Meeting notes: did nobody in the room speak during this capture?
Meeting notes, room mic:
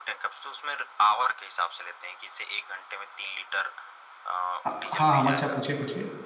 No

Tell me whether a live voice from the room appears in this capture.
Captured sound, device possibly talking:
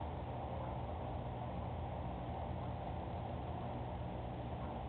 No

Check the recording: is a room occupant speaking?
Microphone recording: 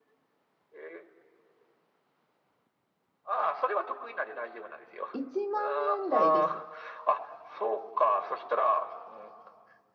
Yes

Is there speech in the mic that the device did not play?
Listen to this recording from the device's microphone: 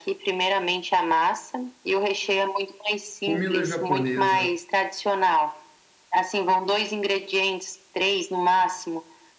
Yes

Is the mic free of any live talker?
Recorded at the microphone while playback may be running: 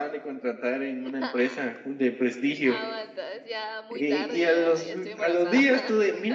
No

